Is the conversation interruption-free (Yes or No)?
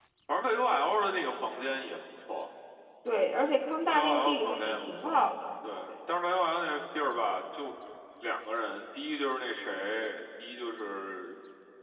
No